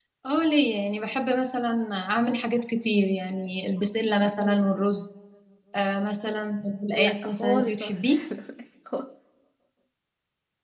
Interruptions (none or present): present